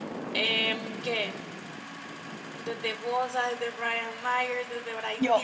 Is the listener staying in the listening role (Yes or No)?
Yes